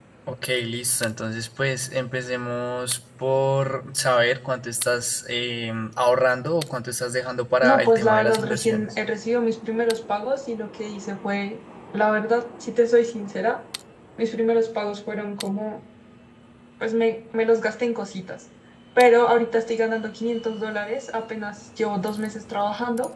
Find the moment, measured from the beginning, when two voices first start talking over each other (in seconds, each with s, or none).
7.6 s